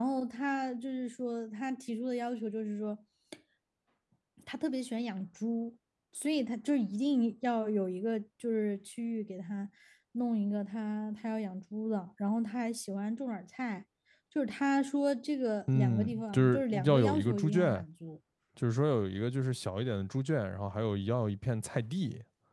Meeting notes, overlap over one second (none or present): present